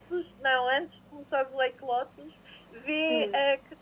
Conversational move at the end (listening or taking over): listening